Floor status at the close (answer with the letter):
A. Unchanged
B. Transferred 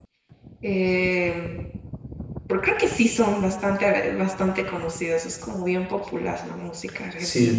B